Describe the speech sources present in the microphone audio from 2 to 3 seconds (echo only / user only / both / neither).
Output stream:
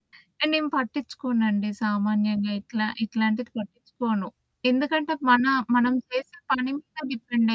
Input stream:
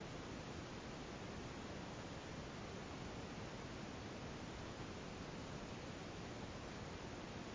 neither